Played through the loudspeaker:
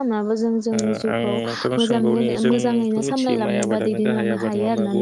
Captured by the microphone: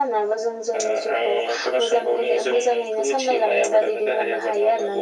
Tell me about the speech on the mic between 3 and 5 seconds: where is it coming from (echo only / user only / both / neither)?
echo only